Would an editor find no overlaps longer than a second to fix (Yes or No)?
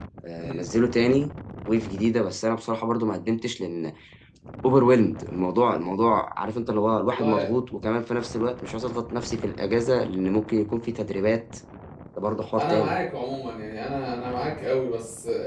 Yes